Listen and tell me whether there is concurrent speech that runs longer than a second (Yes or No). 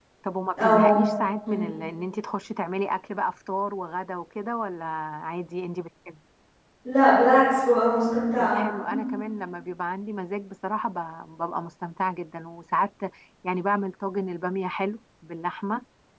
No